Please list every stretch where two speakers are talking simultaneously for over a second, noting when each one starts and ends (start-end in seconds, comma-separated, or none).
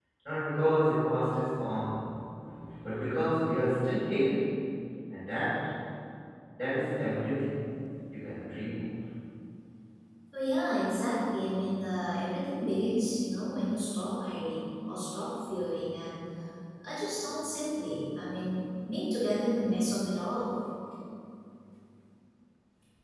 none